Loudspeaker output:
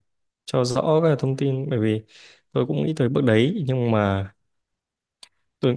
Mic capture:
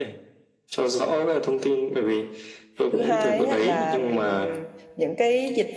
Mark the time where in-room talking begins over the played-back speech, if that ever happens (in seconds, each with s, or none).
2.9 s